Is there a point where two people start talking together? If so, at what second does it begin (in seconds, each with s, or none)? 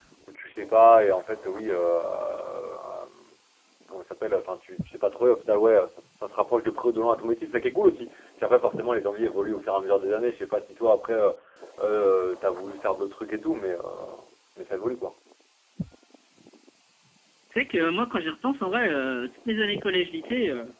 none